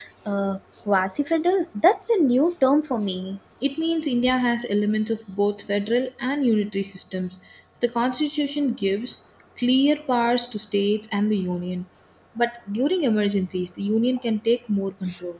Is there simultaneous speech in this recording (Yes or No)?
No